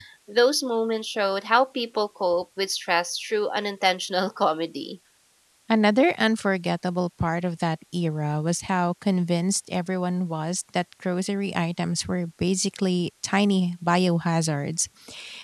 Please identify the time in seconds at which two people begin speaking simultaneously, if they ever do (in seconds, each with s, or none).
none